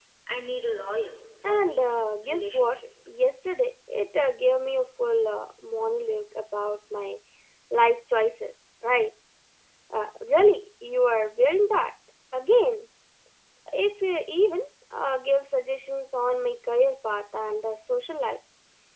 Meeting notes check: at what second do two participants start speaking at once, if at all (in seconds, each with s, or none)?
1.4 s